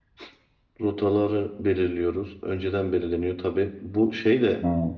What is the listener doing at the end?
listening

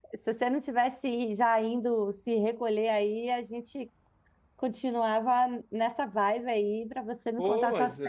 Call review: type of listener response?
taking over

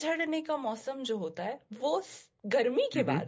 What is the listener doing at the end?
listening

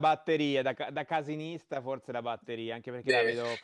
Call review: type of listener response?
listening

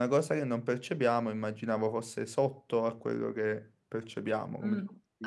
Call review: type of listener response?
taking over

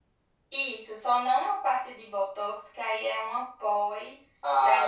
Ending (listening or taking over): taking over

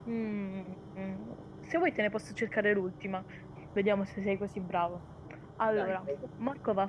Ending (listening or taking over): listening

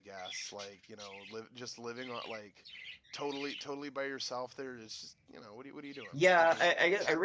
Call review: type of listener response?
taking over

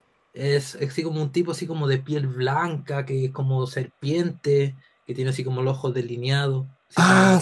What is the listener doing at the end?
taking over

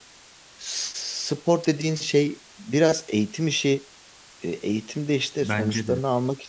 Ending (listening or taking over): listening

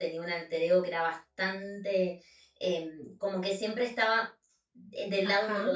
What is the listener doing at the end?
listening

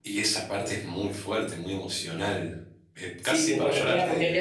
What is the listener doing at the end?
taking over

